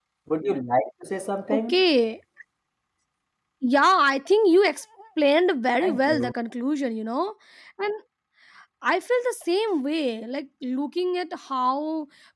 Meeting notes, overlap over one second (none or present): none